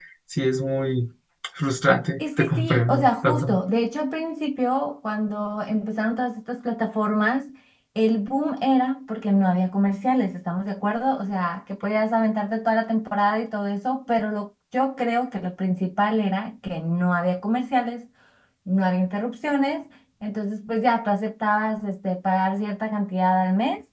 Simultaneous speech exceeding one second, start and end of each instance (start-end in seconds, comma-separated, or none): 2.2-3.6